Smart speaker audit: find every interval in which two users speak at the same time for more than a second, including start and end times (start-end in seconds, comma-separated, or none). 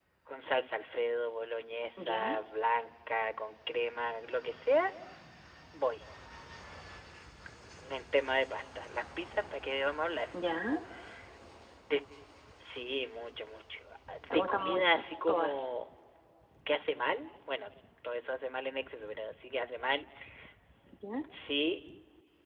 14.3-15.7